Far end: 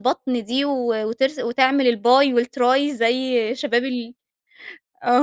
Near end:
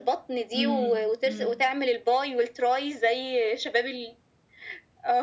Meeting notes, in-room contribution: present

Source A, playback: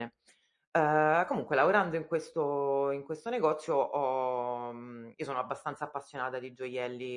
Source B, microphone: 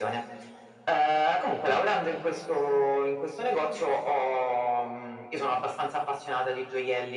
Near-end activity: none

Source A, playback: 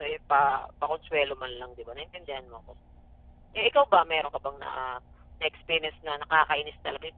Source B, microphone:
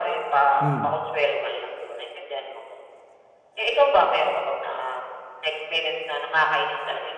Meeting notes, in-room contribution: present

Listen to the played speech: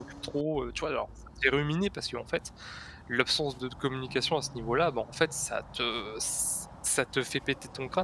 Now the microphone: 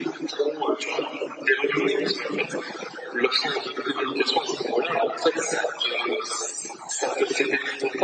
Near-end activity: none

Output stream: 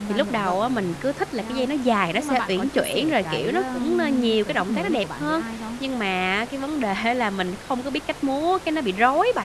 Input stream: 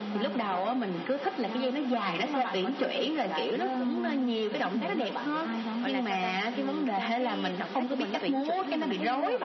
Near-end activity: present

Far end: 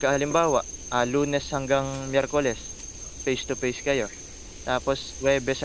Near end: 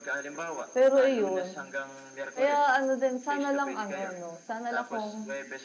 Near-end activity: present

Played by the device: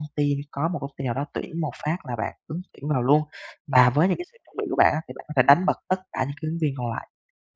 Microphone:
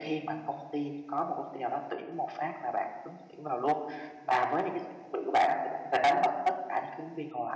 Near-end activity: none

